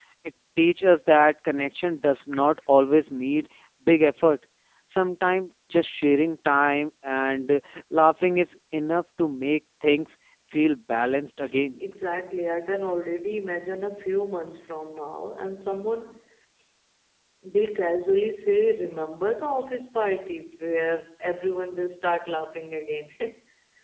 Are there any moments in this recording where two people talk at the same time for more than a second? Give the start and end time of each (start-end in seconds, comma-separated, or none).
none